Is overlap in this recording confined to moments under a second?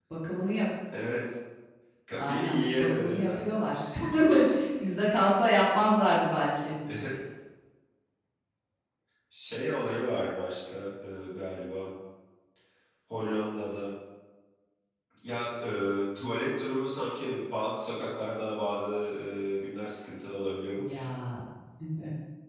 No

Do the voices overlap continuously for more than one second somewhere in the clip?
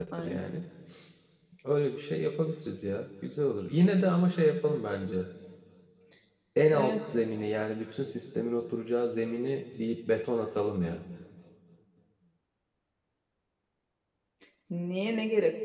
No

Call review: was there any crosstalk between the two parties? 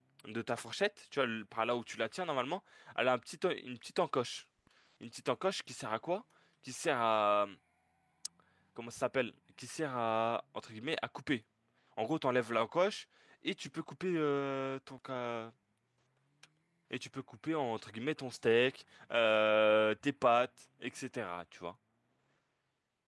No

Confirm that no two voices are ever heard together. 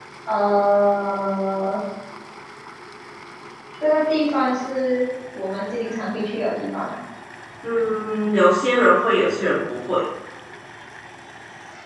Yes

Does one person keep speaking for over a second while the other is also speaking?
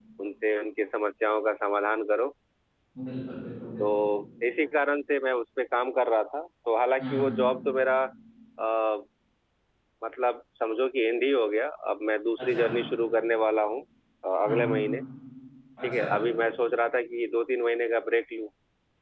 No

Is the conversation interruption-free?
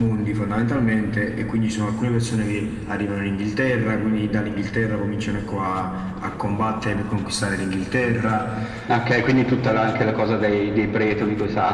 Yes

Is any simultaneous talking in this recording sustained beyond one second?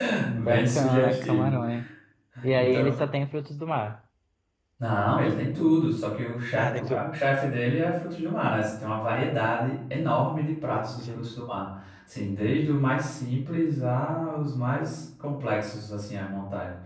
Yes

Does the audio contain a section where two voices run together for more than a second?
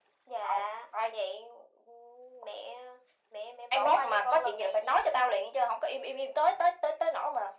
Yes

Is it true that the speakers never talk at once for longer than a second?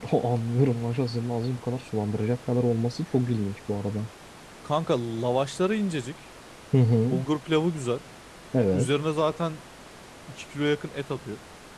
Yes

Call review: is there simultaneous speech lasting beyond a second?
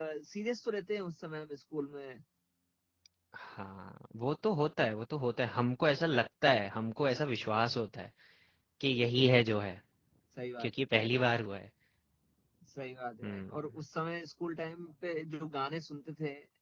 No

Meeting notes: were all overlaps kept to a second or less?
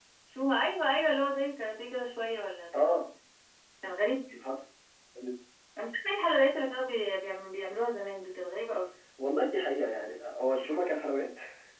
Yes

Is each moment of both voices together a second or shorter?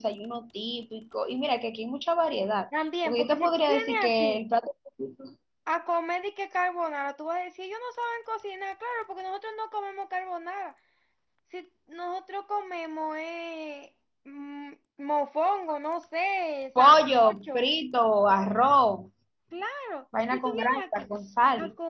No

